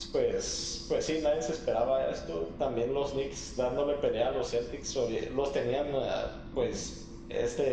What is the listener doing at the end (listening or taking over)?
listening